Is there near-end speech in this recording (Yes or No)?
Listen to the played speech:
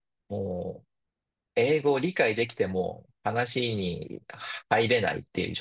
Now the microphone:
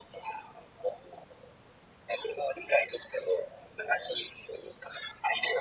No